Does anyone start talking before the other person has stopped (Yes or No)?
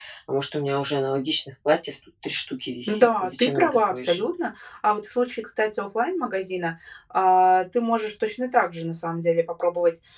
Yes